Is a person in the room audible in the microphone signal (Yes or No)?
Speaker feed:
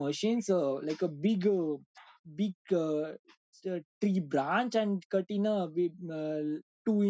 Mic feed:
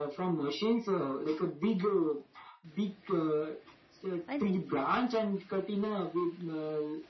Yes